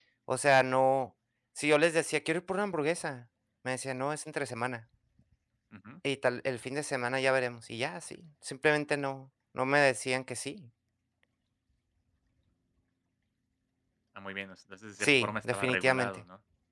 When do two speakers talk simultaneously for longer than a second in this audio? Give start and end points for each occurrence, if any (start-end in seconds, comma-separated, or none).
15.0-16.2